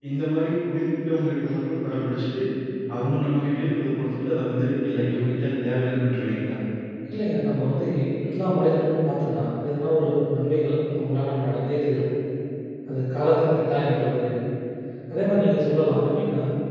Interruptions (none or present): none